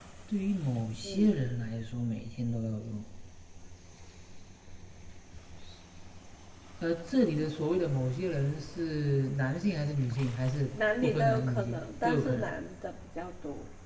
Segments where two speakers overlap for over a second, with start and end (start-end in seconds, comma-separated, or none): 11.0-12.5